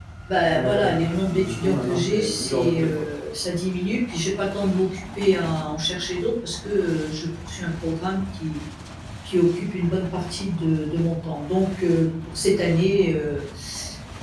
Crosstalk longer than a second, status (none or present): present